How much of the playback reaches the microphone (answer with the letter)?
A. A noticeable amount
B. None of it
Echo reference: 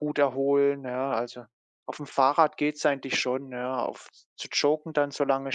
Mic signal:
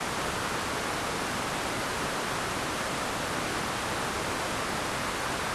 B